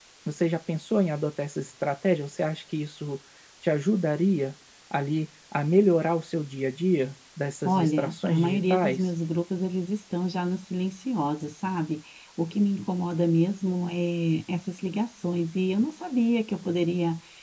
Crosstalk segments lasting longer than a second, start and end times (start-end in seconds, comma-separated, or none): 7.6-9.1